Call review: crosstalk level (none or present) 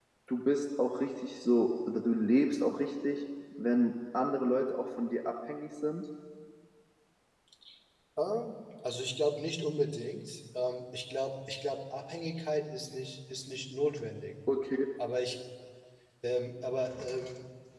none